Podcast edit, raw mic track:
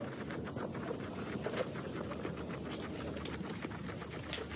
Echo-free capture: Yes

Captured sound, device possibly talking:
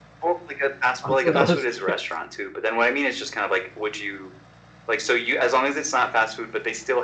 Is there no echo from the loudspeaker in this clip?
No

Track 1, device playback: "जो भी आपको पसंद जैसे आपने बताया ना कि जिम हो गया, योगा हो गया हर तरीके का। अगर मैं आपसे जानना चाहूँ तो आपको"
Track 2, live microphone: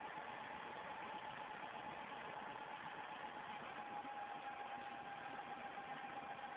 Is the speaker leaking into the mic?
No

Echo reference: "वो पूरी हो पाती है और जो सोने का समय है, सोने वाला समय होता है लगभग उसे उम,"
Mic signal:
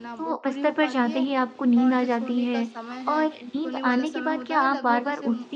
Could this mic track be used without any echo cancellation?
No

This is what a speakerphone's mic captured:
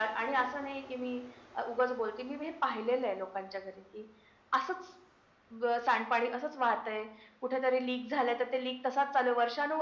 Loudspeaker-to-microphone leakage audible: Yes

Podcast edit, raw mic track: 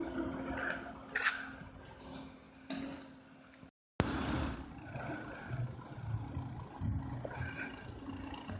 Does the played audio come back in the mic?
No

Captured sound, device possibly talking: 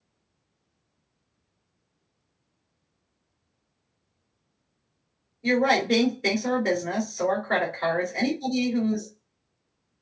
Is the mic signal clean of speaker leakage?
Yes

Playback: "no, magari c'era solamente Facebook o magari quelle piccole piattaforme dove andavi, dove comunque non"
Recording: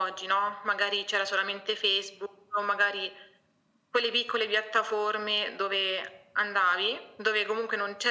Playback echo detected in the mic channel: Yes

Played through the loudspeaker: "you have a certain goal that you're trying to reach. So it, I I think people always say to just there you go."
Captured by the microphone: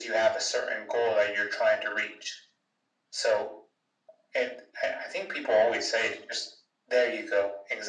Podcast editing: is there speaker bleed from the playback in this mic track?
Yes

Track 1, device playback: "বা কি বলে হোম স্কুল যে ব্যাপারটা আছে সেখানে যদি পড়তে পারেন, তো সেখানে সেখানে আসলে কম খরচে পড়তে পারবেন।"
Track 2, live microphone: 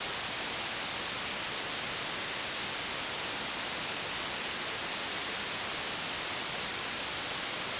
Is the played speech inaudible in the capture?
Yes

